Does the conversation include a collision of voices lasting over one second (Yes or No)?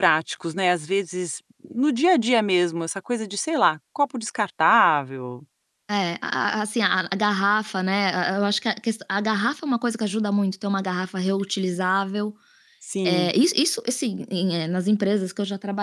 No